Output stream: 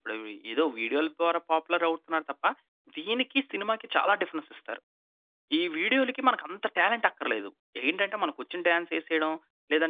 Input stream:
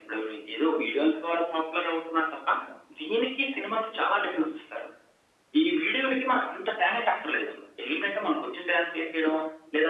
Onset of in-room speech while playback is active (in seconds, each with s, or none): none